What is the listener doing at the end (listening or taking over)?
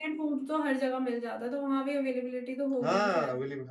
taking over